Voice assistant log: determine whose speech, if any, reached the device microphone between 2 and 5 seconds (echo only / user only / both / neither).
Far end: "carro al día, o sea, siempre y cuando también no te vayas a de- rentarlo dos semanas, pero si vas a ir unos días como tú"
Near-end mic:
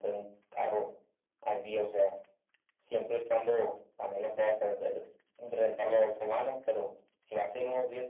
echo only